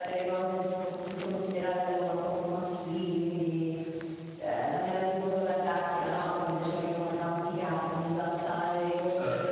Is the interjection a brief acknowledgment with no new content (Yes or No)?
Yes